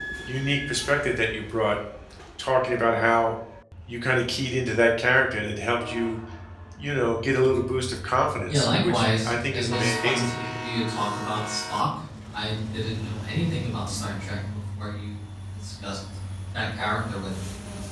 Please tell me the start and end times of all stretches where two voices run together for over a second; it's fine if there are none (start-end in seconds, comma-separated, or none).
8.5-10.3